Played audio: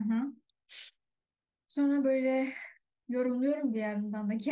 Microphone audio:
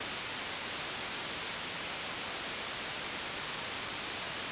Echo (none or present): none